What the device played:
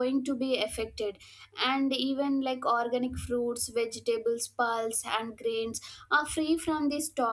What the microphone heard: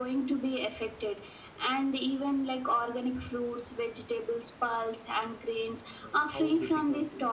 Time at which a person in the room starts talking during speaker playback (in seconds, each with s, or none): 6.0 s